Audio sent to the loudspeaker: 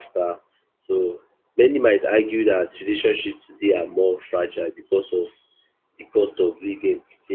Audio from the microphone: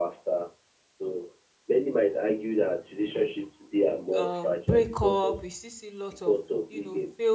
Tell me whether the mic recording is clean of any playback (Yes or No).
No